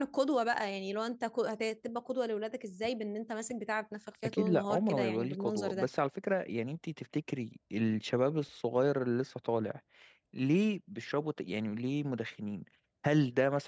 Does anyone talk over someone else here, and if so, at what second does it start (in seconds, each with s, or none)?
4.2 s